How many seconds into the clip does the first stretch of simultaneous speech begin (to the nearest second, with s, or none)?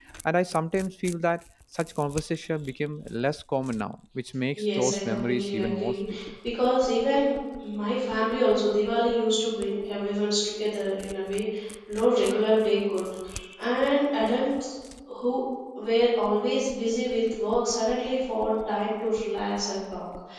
5 s